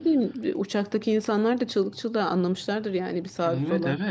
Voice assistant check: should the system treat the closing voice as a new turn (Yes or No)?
Yes